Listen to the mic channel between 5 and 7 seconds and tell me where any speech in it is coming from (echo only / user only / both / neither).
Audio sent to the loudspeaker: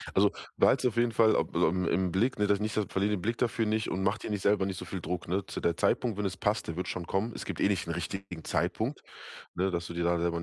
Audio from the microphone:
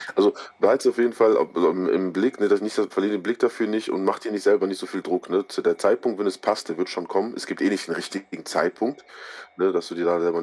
echo only